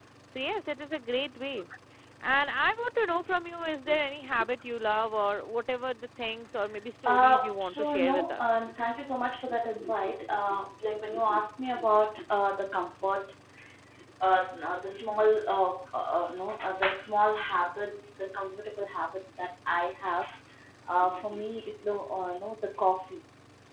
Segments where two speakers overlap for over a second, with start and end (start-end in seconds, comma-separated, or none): 7.0-8.5